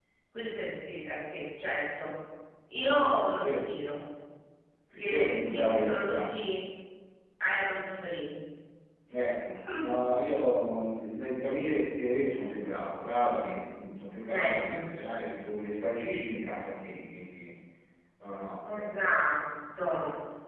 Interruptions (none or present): present